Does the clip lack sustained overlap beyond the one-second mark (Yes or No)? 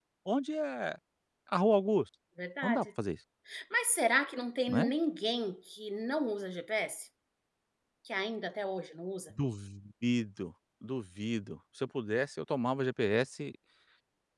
Yes